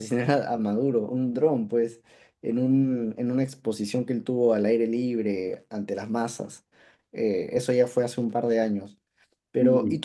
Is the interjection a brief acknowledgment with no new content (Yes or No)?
Yes